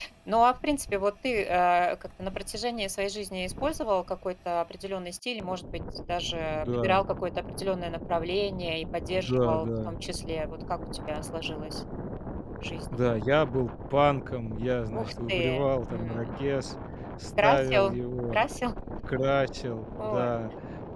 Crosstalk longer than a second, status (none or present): present